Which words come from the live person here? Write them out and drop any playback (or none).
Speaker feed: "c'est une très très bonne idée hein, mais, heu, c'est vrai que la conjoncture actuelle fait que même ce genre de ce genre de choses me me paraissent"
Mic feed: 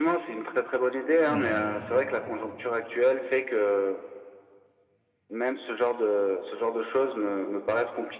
Ouais.